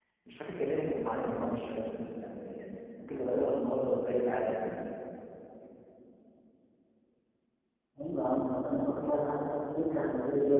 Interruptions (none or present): none